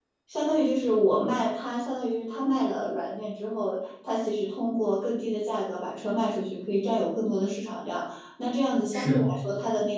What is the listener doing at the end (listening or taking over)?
listening